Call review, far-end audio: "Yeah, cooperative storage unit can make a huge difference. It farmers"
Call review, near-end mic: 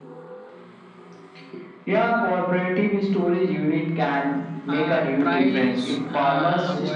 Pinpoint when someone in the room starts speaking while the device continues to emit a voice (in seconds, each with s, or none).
4.7 s